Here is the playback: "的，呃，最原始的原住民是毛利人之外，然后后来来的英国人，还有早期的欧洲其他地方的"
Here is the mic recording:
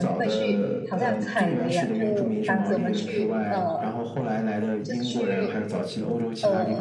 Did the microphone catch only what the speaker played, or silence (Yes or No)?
No